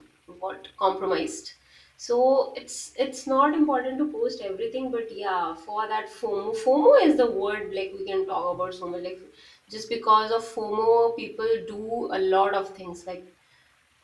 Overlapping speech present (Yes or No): No